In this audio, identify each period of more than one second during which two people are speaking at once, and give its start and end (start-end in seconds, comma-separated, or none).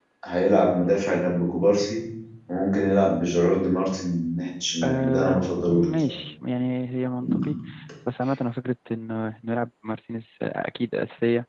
4.8-6.2